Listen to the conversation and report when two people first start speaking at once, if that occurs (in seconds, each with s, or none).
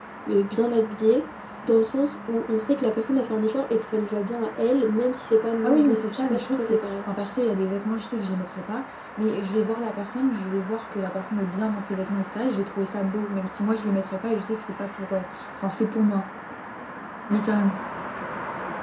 5.6 s